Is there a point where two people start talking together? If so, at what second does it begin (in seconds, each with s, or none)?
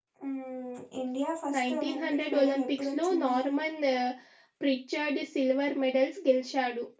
1.5 s